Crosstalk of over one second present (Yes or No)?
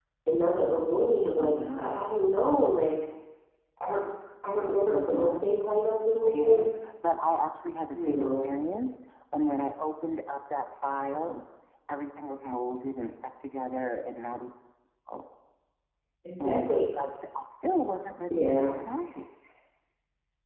No